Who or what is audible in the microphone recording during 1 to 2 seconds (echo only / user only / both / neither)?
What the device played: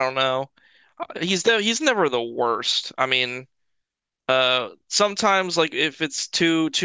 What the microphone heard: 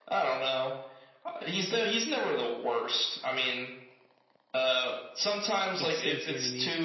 echo only